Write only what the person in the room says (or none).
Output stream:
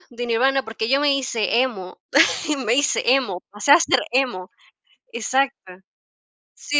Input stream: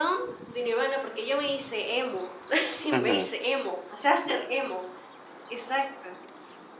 Ujú.